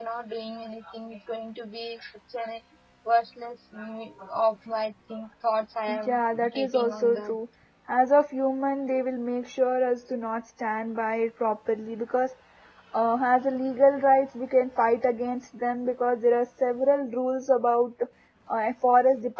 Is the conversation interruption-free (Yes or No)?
No